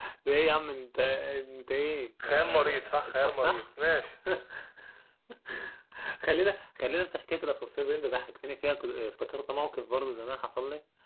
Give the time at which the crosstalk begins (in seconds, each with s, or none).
2.2 s